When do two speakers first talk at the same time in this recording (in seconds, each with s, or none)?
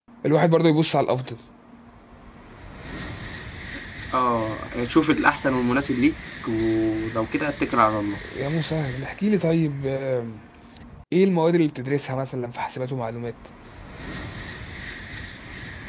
none